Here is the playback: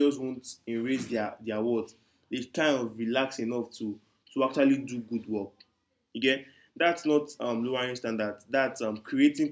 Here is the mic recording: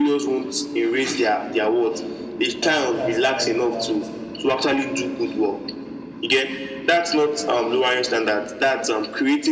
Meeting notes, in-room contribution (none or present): present